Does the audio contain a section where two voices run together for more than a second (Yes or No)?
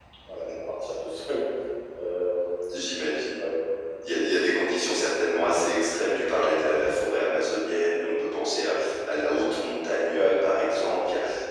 No